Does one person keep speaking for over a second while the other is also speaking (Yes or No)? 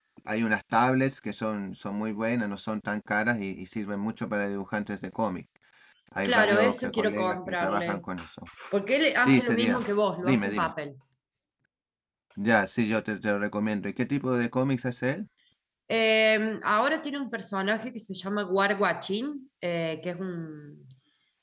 Yes